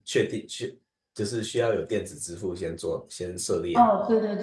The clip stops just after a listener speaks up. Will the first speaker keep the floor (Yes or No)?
No